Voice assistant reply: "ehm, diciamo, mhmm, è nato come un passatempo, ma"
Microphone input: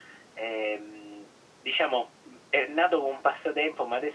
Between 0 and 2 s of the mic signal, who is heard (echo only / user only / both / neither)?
echo only